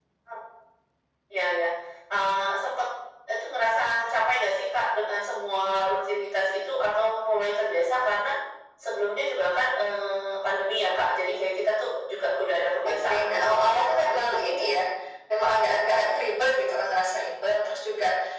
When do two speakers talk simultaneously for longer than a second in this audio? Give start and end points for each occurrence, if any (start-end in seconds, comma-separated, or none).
12.8-14.8